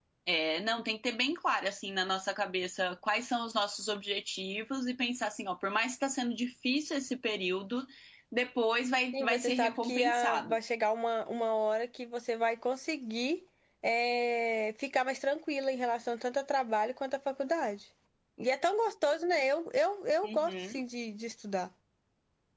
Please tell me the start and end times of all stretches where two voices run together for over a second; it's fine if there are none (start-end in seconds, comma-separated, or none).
9.1-10.6